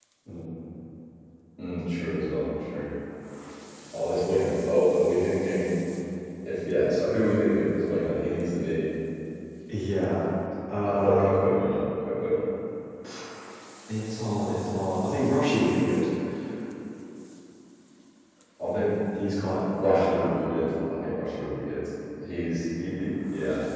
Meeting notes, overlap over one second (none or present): none